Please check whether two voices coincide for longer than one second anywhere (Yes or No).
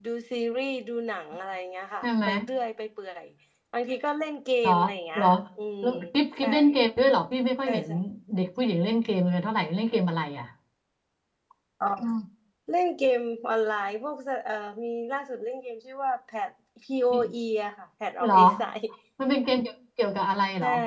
No